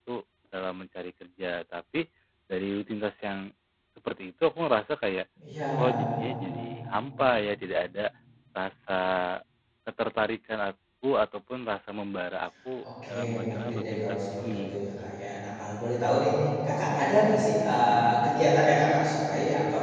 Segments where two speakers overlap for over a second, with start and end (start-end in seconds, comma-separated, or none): 13.1-14.8